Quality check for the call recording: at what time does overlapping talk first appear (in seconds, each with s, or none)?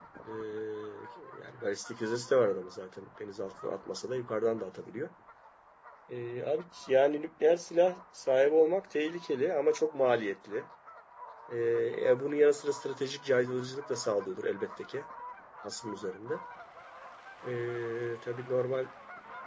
none